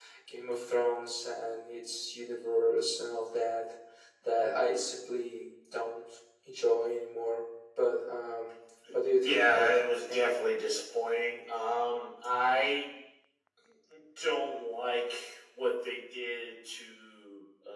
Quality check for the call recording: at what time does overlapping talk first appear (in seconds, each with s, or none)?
9.2 s